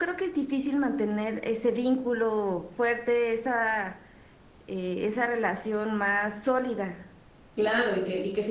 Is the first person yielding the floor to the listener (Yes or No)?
Yes